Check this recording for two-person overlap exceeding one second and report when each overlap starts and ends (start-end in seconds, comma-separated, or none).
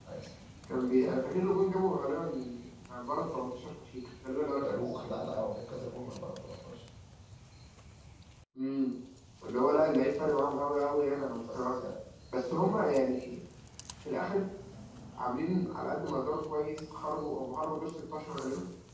none